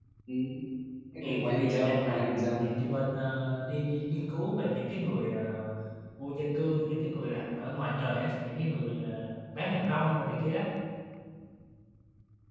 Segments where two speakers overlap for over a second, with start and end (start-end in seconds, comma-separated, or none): 1.2-2.6